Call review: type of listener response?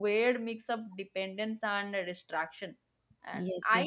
listening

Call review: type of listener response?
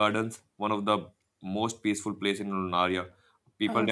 listening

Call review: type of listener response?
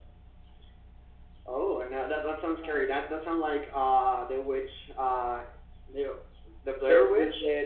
taking over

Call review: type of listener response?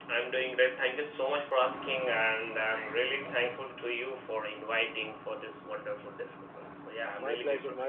taking over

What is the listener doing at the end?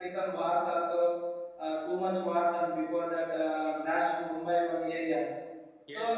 taking over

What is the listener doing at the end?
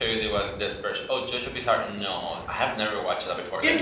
taking over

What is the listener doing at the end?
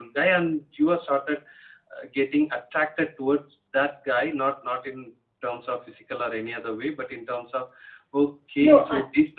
listening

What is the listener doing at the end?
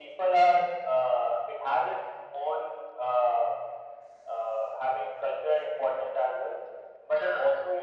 listening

